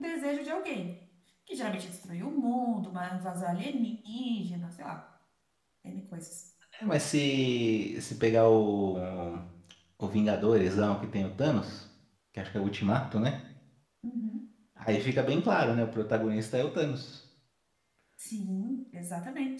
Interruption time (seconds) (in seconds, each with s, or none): none